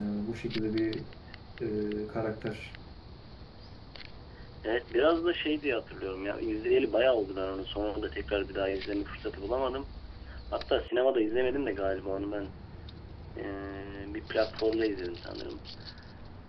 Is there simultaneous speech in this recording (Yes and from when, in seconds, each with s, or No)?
No